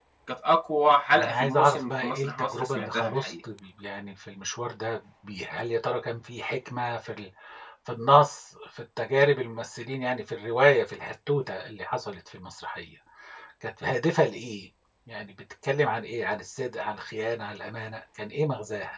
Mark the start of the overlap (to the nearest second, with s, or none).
1 s